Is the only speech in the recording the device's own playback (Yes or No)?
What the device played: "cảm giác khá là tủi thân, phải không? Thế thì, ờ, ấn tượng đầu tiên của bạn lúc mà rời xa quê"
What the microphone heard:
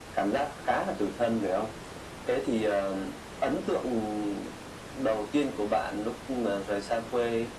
Yes